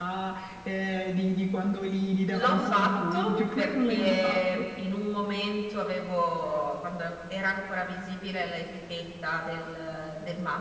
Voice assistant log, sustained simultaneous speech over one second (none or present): present